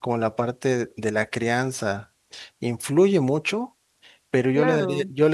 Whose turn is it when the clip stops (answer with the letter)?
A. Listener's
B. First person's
B